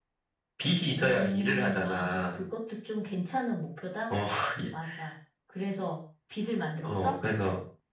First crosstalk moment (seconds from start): 0.8 s

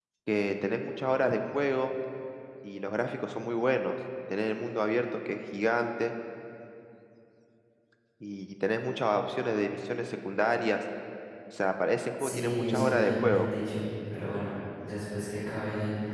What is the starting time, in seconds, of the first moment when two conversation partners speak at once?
12.2 s

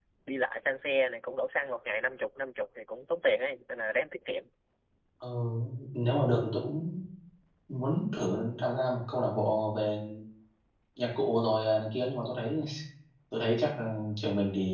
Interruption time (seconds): none

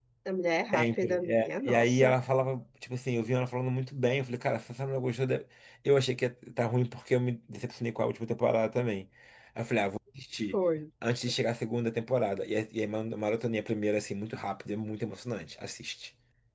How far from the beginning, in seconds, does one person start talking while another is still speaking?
0.7 s

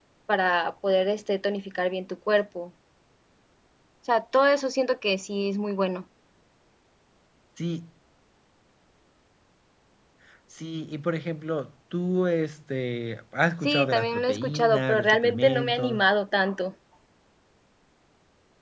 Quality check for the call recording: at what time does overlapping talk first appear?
13.6 s

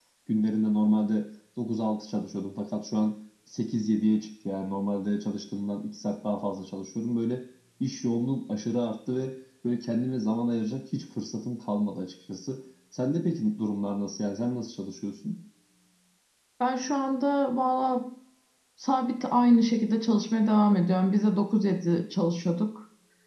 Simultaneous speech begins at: none

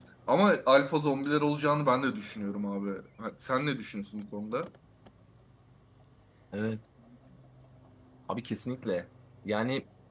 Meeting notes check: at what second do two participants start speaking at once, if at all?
none

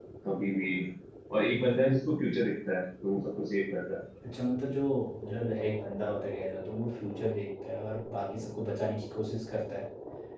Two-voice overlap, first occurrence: none

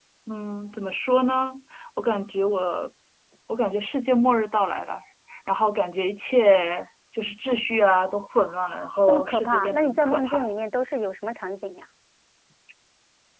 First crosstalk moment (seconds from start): 9.1 s

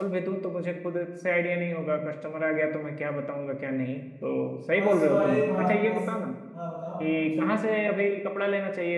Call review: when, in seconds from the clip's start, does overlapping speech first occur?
4.7 s

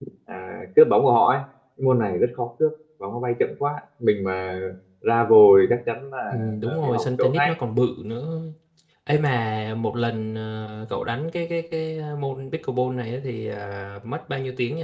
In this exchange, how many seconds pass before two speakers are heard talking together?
6.3 s

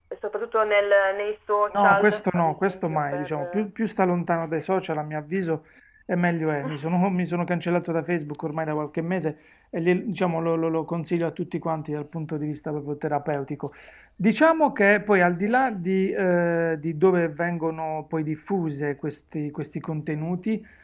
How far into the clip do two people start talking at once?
1.7 s

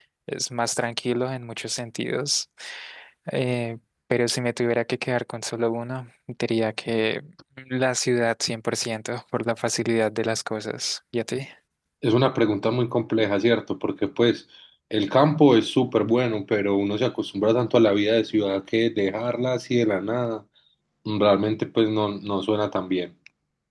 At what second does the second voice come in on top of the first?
none

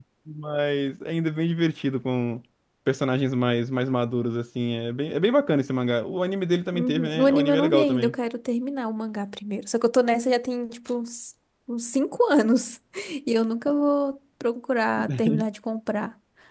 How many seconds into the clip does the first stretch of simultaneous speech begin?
6.7 s

